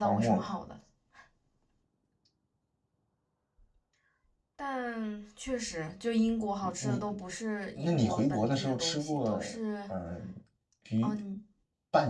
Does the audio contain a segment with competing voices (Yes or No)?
Yes